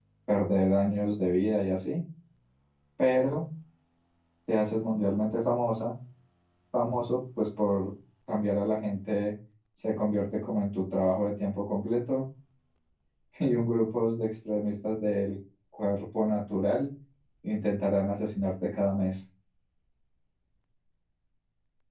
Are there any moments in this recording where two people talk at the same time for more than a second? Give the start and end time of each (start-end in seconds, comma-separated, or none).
none